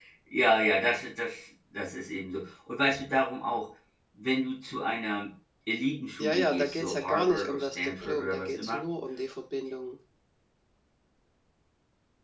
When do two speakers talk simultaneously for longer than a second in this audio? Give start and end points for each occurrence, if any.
6.2-8.8

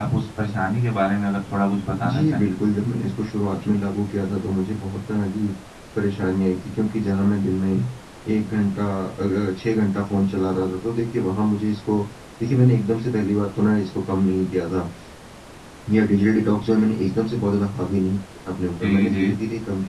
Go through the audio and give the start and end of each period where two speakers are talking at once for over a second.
none

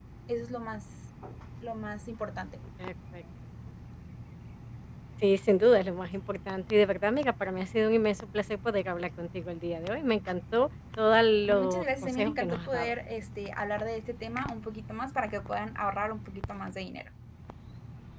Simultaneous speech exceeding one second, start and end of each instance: 11.5-12.9

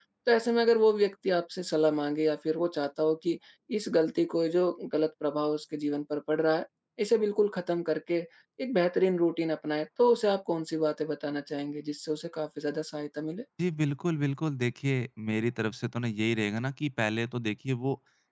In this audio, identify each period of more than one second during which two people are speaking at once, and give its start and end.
none

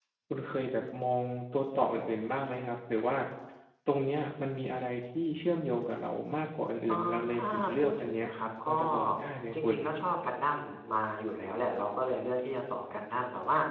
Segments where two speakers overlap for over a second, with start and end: 6.9-8.2

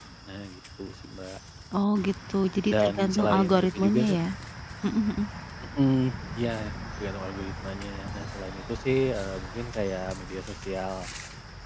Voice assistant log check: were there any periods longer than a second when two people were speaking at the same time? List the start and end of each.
2.7-4.2

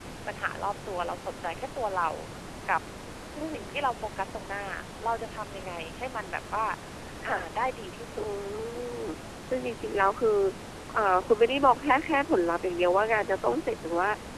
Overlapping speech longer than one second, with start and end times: none

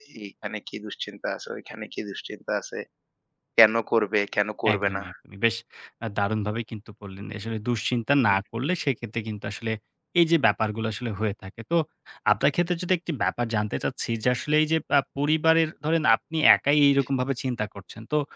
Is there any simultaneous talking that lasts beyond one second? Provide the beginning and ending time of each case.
none

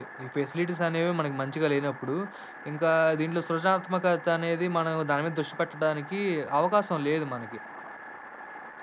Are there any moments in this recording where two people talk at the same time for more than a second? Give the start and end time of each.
none

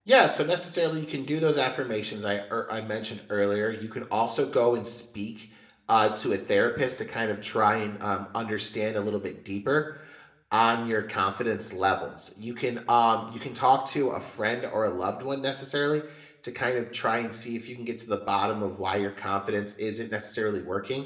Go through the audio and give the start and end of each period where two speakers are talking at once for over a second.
none

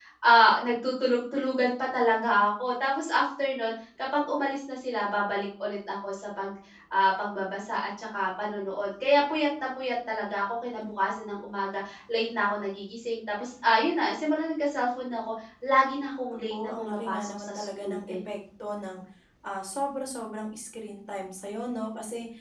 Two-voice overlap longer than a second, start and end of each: 16.5-18.2

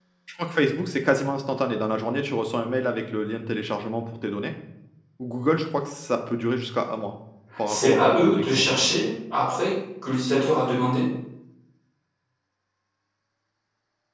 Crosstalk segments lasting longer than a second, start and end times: 7.7-8.9

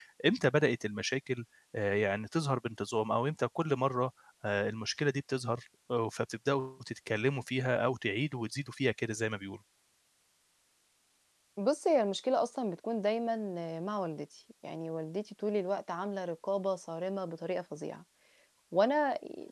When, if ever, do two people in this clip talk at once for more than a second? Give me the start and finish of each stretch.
none

